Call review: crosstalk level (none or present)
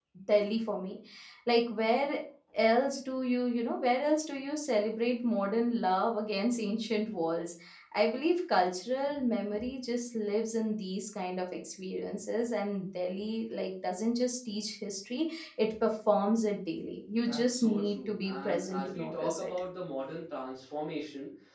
present